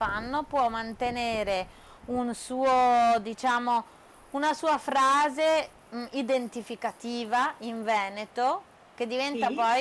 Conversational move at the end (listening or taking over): listening